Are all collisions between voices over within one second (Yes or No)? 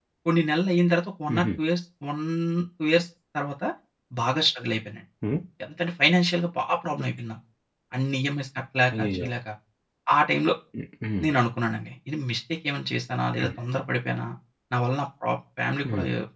Yes